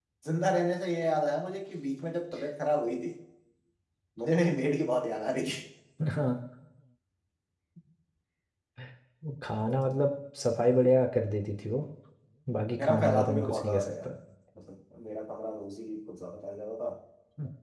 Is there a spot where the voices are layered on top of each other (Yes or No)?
Yes